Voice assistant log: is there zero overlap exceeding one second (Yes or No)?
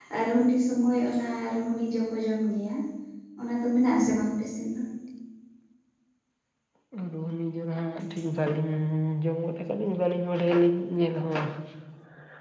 Yes